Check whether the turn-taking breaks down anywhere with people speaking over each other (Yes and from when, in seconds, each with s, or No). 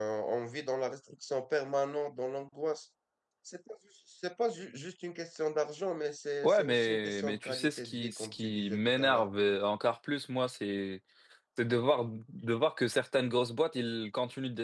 Yes, from 6.4 s